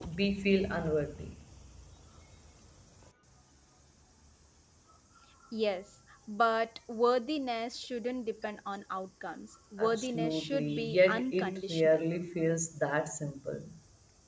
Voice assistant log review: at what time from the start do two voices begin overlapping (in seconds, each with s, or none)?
9.8 s